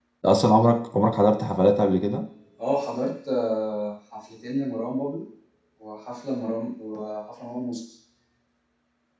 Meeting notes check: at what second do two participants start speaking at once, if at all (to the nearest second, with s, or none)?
none